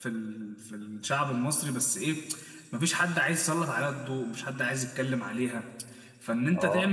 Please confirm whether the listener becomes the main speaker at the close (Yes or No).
No